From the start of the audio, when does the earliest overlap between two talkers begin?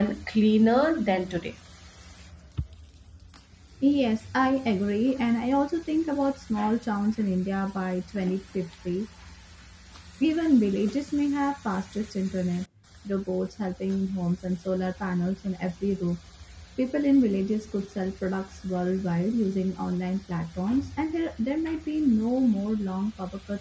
none

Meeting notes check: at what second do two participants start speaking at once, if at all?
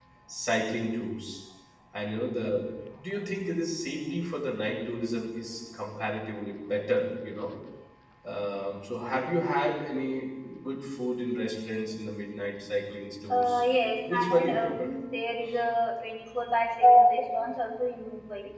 13.3 s

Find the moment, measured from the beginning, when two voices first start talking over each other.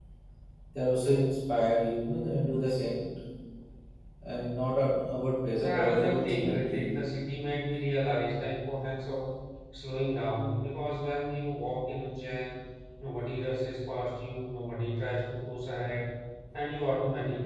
5.5 s

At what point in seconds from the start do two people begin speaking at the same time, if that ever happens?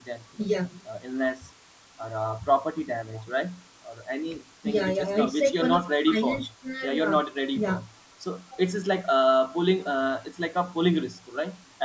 4.7 s

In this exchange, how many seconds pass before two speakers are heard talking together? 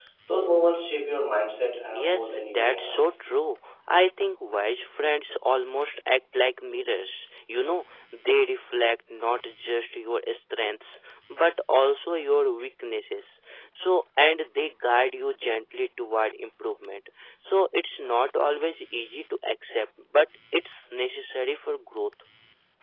1.9 s

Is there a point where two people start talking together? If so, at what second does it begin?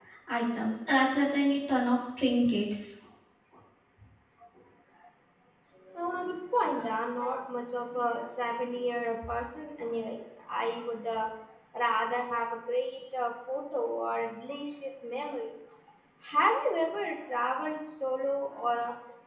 none

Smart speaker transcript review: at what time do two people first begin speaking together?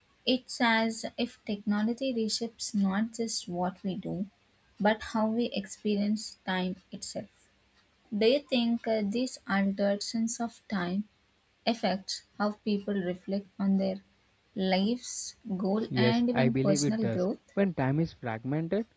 15.9 s

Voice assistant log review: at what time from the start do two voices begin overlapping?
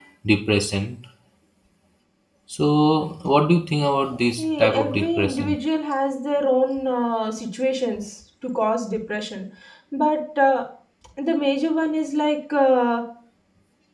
4.4 s

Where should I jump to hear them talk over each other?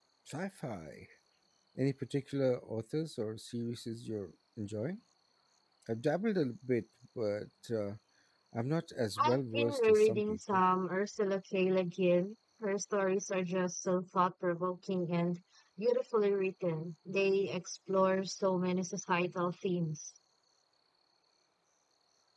9.2 s

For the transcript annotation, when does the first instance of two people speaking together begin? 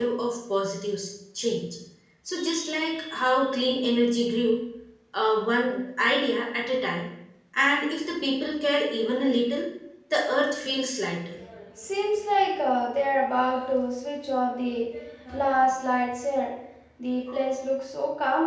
none

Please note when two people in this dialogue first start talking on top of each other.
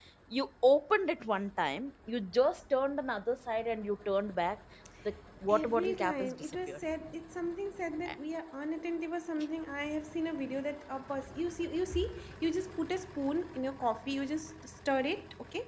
5.5 s

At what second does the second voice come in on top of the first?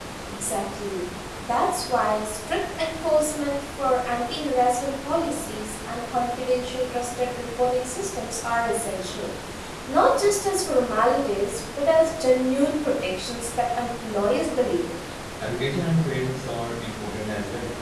none

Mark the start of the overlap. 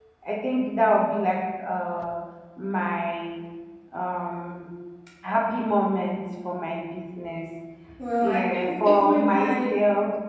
8.2 s

